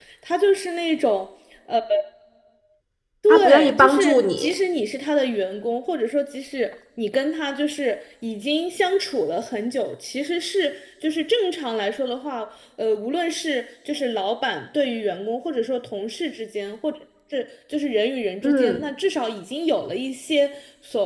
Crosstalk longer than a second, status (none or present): present